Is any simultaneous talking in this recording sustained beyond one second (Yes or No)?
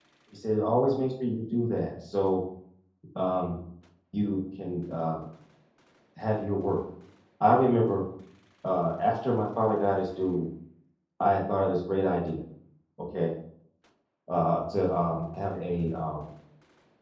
No